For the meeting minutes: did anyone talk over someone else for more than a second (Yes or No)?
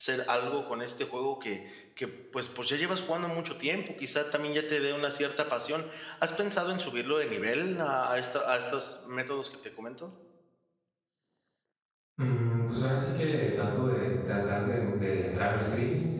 No